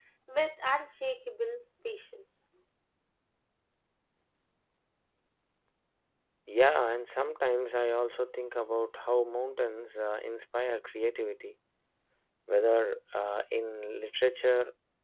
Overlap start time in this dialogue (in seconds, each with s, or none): none